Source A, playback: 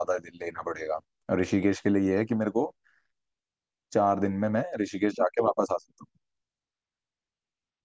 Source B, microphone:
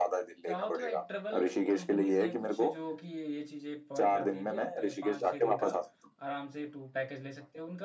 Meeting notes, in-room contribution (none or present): present